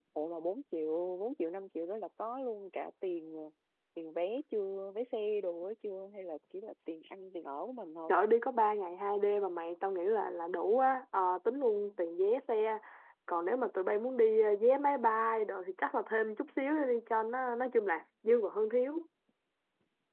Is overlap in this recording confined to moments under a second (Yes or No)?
Yes